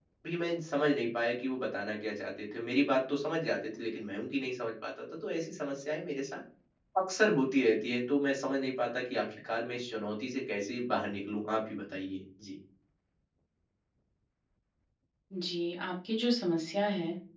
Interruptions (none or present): none